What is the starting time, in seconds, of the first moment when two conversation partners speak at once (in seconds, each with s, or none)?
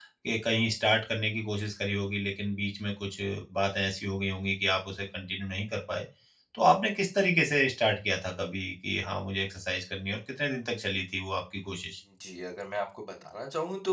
none